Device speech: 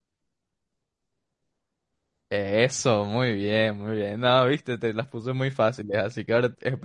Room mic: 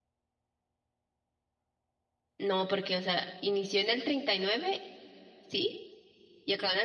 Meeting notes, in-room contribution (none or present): present